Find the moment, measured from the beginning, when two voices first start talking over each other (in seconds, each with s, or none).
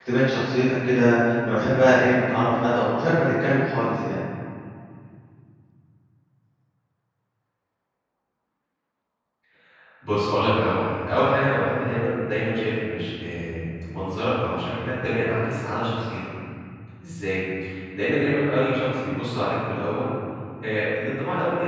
none